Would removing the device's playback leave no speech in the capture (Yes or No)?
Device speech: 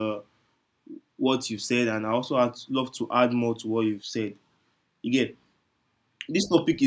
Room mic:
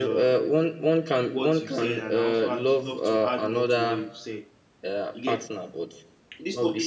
No